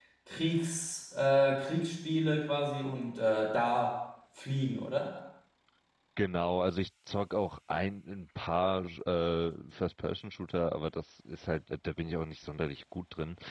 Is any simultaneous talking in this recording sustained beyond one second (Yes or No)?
No